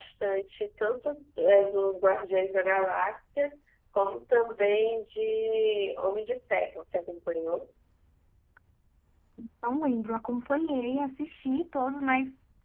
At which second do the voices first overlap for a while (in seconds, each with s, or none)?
none